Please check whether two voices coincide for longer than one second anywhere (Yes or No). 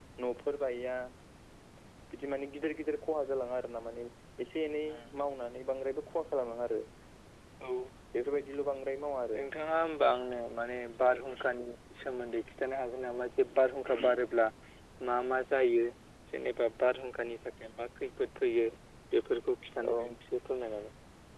No